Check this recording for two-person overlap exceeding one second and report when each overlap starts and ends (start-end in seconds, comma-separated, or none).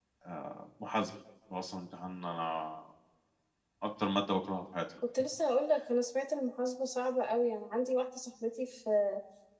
none